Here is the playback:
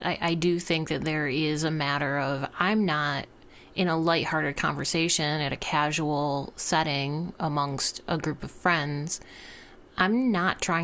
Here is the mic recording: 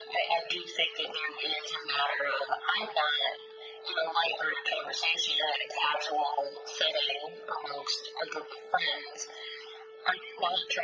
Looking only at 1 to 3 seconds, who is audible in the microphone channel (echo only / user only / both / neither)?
echo only